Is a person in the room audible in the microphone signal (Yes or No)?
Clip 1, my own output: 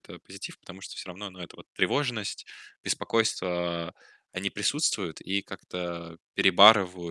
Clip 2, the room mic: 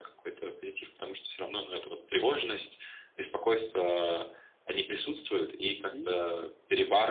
Yes